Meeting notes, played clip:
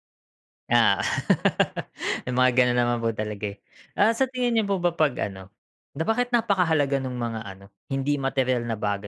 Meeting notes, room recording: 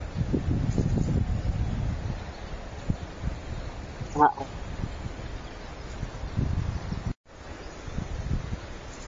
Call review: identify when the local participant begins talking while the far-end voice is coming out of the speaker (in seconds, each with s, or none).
4.2 s